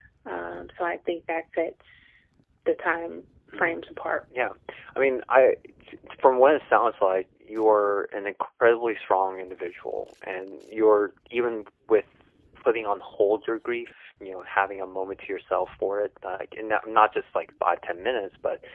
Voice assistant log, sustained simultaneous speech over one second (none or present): none